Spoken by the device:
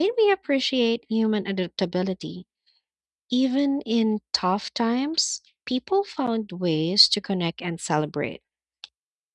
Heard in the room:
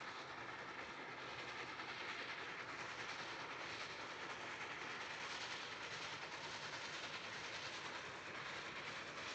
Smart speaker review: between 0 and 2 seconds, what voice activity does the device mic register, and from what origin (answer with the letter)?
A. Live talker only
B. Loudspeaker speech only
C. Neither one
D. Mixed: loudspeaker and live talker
C